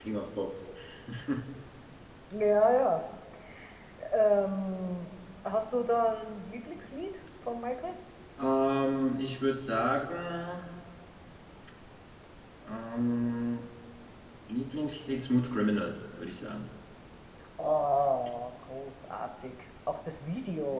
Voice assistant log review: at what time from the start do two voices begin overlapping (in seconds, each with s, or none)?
none